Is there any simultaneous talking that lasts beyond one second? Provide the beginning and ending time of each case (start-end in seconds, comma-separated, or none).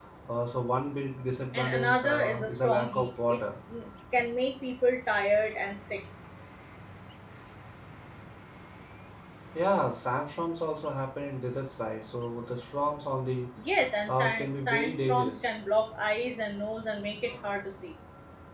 1.5-3.5, 14.1-15.5